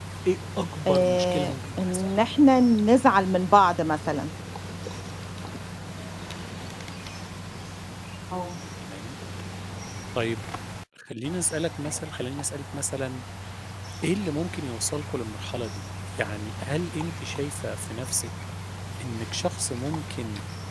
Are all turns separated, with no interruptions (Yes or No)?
No